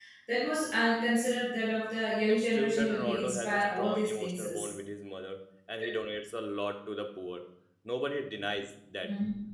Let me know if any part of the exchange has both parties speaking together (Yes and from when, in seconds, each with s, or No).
Yes, from 2.3 s